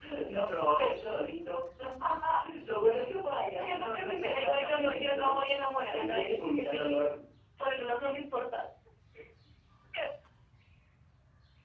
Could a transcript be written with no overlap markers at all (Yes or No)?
No